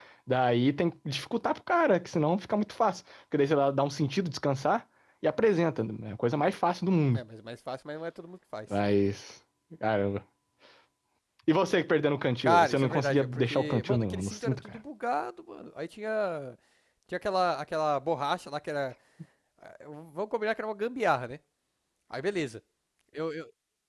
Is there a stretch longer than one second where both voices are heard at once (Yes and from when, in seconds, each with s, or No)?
Yes, from 12.4 s